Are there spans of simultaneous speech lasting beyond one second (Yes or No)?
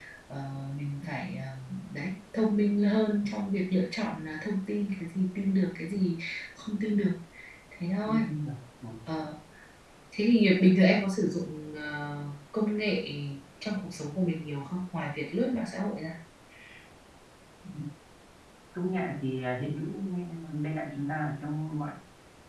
No